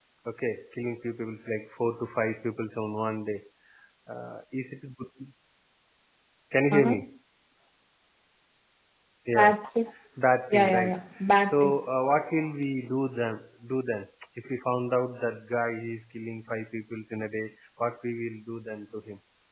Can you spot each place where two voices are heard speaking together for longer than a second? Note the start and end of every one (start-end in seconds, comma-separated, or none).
none